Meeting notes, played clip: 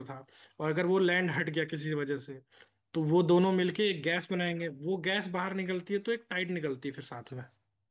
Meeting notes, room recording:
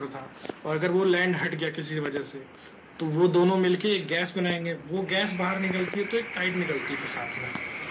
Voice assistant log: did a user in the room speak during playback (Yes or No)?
No